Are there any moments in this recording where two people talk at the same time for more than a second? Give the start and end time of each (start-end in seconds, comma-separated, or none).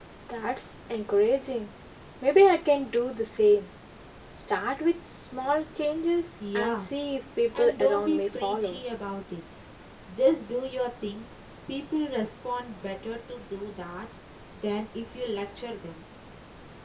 7.6-8.8